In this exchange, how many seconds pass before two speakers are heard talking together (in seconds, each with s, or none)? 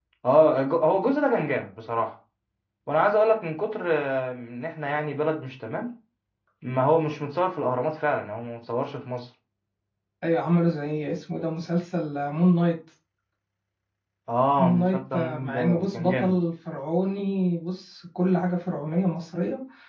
14.6 s